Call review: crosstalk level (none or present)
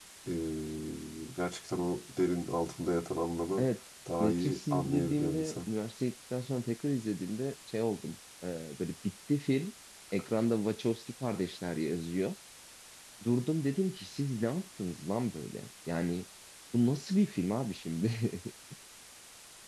present